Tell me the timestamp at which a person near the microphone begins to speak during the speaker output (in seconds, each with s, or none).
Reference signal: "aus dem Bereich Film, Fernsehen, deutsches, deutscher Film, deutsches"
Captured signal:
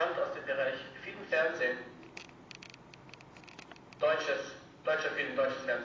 none